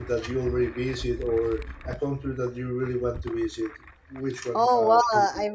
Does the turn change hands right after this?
Yes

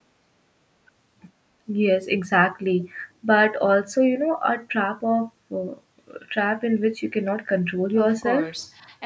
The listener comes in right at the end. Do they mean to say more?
Yes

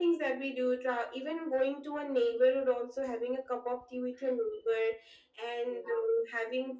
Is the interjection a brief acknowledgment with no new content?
Yes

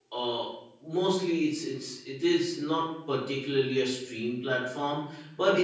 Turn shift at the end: No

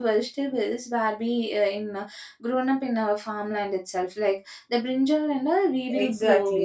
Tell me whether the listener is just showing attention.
No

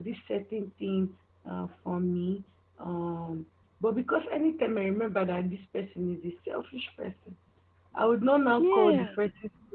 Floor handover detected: No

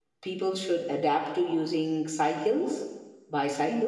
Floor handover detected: Yes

